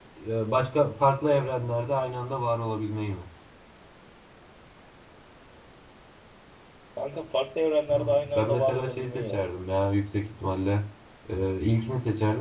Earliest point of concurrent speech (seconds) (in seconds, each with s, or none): 7.9 s